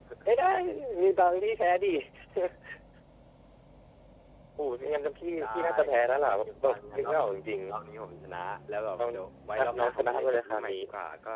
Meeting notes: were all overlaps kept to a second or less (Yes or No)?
No